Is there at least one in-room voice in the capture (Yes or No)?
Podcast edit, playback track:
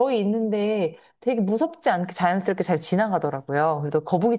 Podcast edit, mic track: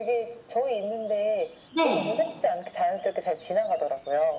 Yes